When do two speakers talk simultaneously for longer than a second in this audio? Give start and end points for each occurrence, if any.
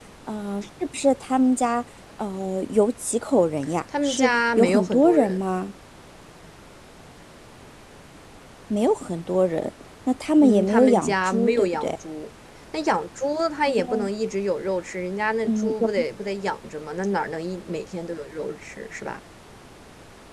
4.0-5.4, 10.4-11.9

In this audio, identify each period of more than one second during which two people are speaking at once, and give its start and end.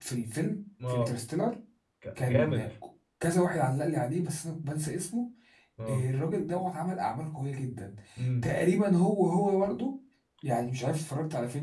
none

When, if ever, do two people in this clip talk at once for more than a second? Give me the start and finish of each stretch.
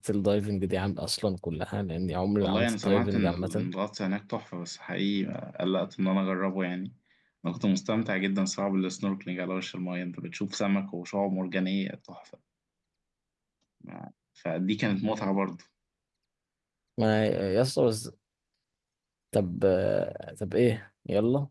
2.4-3.7

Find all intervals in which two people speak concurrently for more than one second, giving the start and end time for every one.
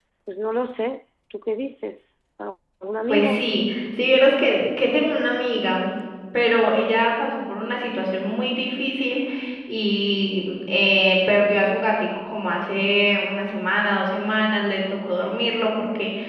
none

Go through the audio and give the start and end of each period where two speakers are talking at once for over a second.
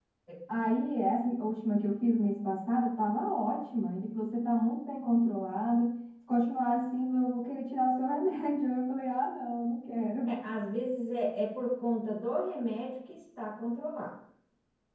none

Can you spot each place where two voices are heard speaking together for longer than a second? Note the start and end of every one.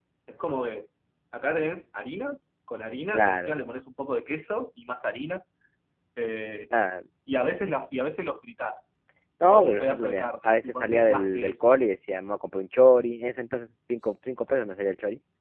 9.5-11.5

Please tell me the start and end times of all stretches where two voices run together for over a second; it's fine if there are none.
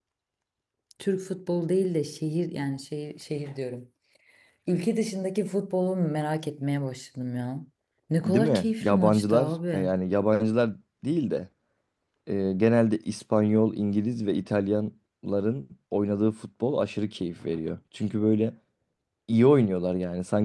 8.3-9.9

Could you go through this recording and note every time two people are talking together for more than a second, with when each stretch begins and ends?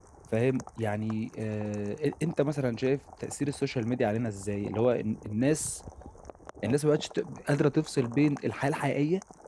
none

